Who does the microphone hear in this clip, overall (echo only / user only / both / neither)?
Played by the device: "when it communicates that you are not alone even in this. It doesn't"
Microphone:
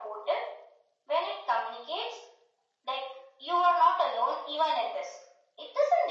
echo only